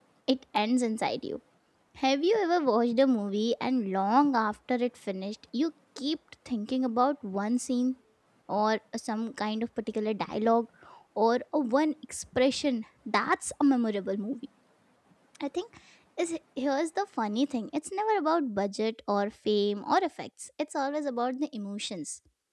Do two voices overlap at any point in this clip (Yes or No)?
No